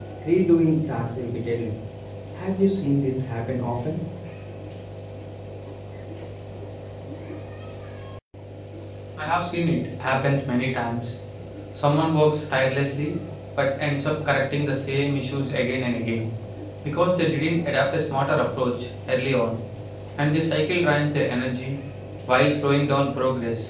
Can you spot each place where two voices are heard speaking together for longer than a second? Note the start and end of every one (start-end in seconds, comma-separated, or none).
none